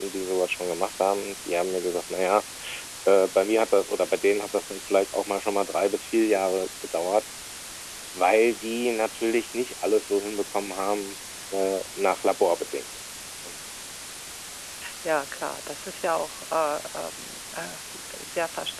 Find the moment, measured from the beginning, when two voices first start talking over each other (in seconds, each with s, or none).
none